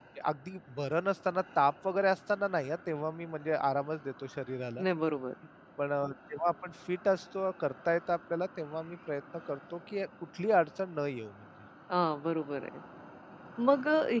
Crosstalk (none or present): none